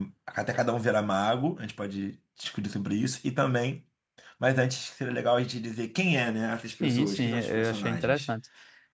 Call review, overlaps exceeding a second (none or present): present